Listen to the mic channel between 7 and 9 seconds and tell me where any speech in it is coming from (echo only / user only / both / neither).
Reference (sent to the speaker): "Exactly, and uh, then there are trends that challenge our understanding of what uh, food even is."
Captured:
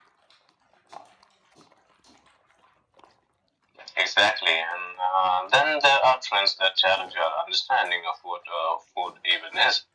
echo only